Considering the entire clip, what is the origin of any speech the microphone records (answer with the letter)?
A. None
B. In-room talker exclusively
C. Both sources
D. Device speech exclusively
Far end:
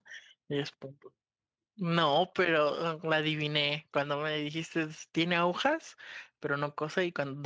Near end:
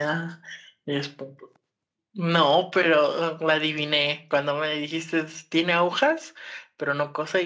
D